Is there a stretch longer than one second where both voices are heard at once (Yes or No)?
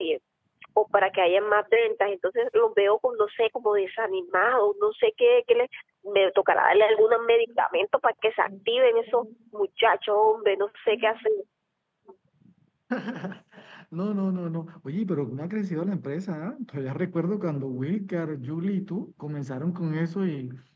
No